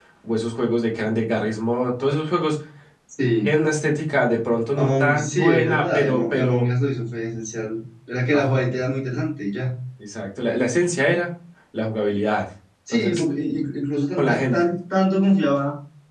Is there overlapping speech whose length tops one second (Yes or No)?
Yes